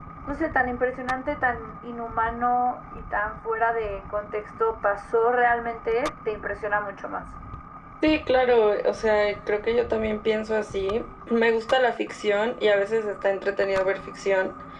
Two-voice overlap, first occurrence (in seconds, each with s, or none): none